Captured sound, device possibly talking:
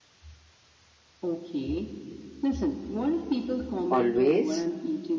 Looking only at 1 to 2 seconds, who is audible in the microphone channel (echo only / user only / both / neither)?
echo only